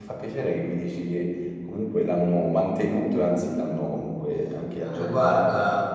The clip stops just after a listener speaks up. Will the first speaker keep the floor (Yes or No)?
No